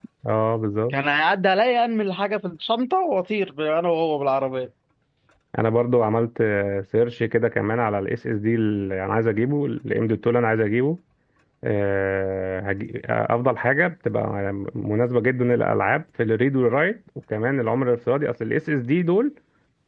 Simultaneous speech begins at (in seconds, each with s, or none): none